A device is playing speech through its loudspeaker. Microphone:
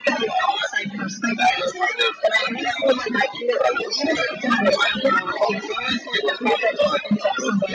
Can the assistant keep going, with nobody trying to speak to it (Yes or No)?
Yes